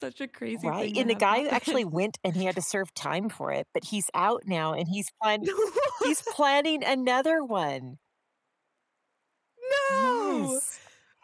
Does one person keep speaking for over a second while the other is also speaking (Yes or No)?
Yes